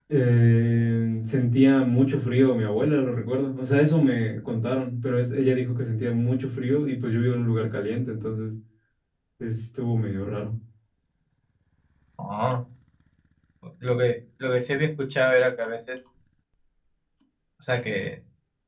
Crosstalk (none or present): none